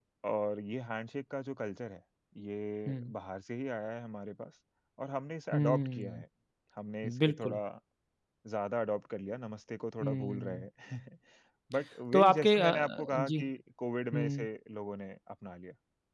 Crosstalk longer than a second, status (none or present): present